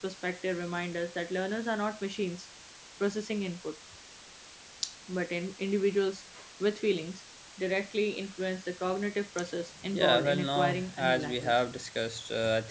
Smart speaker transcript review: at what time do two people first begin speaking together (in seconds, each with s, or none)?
9.9 s